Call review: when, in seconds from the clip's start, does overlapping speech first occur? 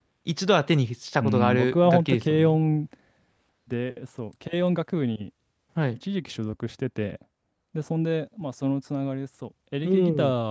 1 s

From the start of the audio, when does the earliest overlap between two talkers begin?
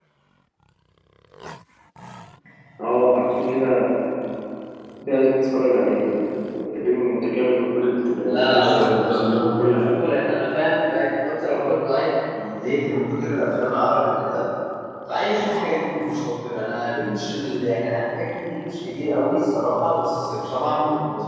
8 s

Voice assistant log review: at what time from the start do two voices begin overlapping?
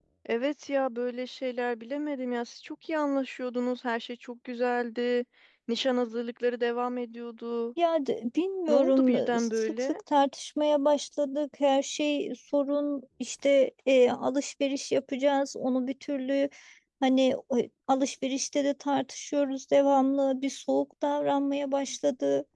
9 s

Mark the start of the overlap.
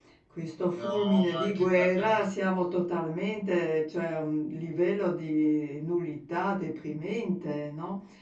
1 s

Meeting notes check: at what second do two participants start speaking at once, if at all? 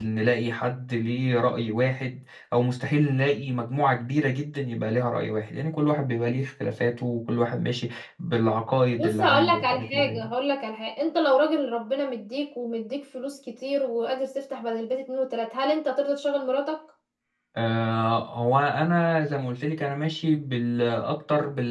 9 s

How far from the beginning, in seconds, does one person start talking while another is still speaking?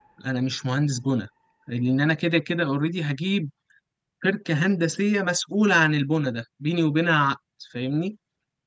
none

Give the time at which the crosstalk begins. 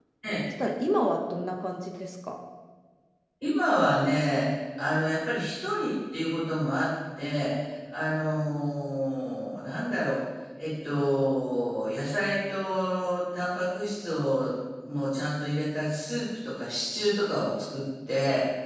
none

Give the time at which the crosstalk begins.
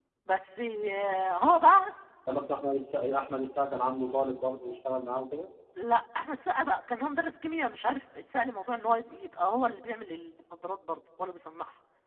none

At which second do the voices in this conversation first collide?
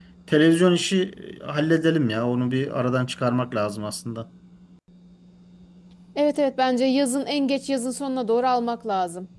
none

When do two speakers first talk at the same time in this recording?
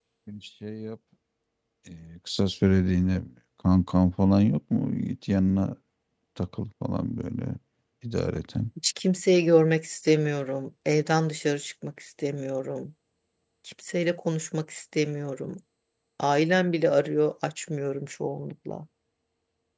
none

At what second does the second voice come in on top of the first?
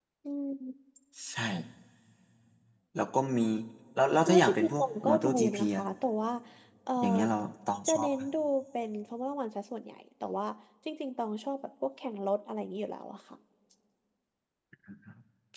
4 s

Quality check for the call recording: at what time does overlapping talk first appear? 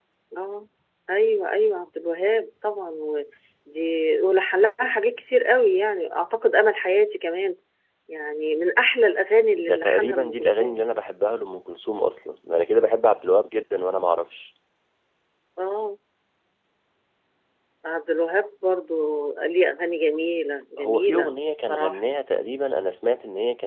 10 s

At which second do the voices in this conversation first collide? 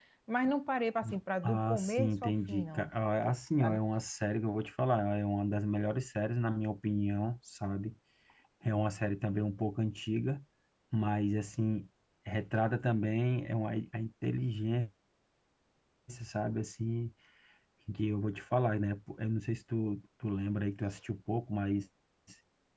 1 s

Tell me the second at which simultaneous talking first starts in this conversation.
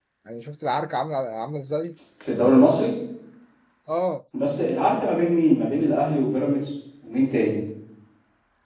none

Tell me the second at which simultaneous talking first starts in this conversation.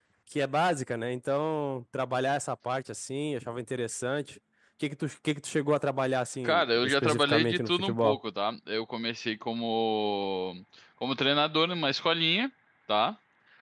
6 s

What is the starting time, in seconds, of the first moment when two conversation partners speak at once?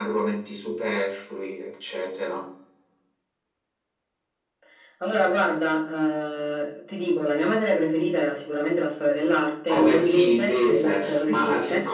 10 s

